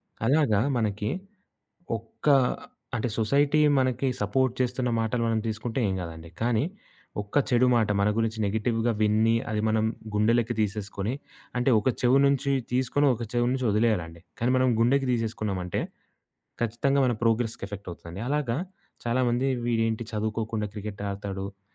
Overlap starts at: none

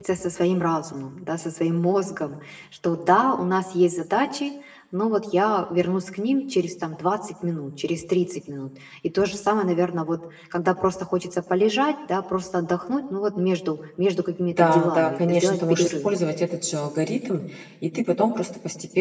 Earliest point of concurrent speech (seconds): 14.5 s

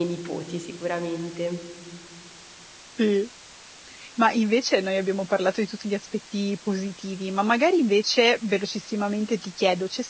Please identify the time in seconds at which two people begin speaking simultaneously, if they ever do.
none

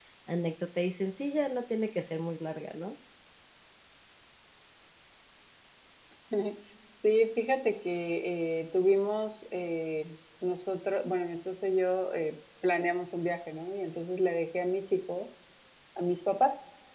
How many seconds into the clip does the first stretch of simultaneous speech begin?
none

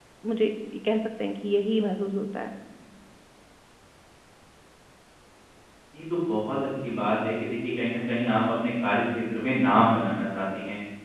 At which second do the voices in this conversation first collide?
none

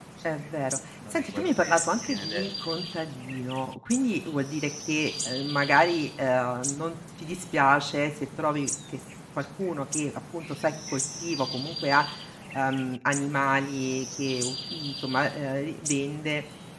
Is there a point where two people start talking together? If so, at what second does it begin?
1.1 s

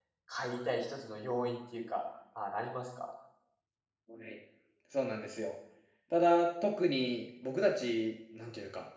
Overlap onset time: none

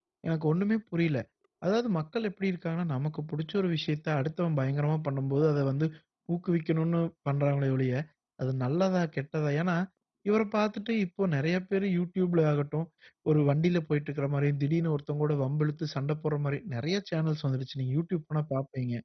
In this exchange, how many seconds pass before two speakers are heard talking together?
none

